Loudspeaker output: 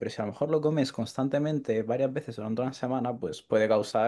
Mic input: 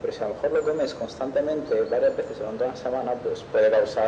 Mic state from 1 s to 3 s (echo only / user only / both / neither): echo only